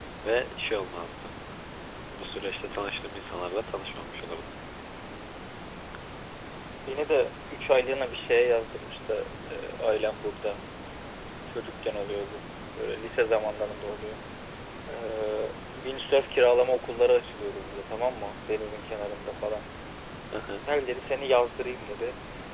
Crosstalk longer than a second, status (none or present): none